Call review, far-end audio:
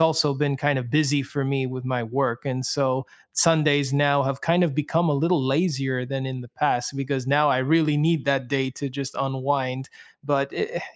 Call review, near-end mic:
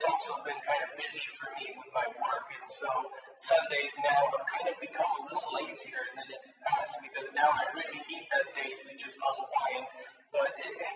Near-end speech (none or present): none